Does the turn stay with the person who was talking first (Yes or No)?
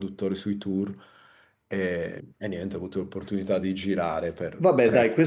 No